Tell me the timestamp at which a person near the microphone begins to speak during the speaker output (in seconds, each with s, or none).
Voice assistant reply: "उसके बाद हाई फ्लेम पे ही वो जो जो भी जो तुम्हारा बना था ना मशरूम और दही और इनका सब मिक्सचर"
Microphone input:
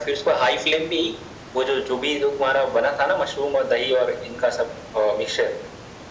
none